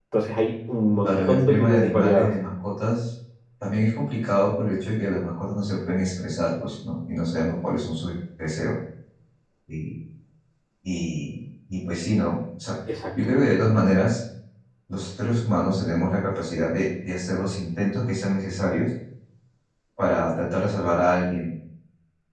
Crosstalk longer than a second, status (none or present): present